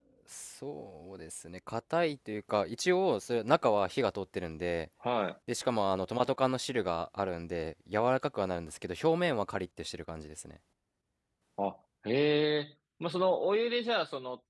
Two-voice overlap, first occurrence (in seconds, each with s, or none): none